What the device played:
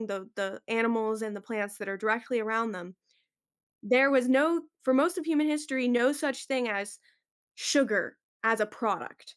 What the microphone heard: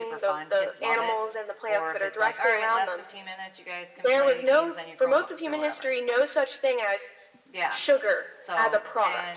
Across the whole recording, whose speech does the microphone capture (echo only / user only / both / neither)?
both